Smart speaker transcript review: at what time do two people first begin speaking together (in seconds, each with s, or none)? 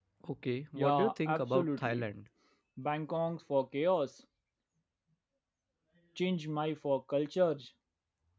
0.8 s